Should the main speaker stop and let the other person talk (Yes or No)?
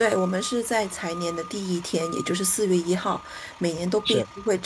No